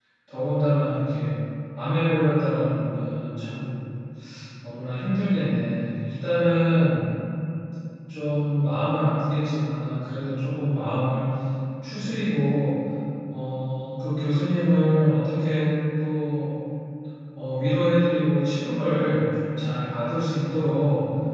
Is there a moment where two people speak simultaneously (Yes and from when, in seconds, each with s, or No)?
No